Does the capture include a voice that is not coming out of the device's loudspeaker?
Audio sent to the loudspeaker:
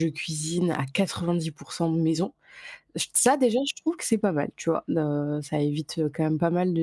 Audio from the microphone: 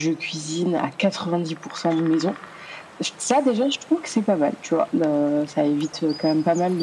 No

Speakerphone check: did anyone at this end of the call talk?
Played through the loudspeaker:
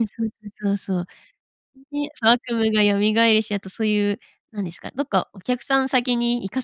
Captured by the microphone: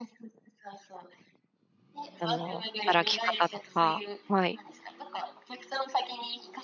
Yes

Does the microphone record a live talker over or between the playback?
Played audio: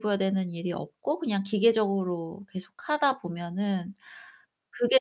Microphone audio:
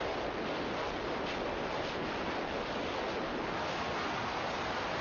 No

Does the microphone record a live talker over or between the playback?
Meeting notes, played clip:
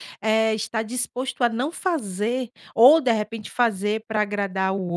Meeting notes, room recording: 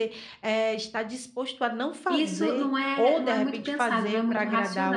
Yes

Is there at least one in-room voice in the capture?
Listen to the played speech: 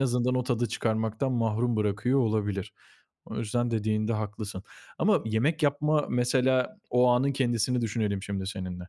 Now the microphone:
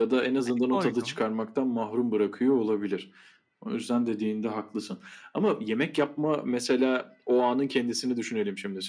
Yes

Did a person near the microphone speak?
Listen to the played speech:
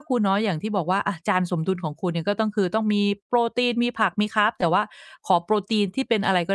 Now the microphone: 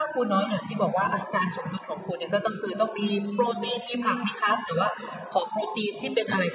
No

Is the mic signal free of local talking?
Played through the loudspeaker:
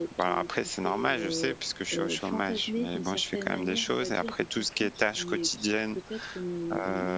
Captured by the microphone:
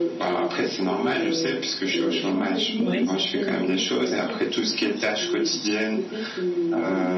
No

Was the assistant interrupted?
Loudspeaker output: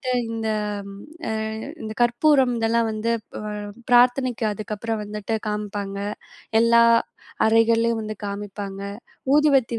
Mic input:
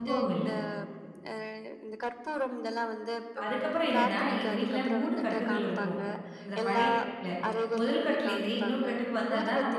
Yes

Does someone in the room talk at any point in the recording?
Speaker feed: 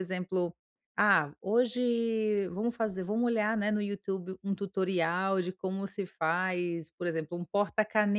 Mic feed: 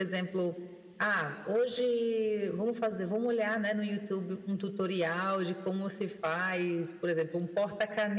No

